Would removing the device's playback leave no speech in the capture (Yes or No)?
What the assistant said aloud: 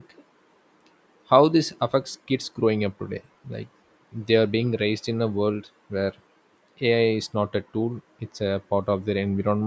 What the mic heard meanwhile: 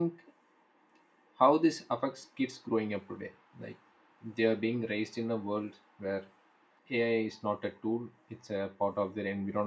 Yes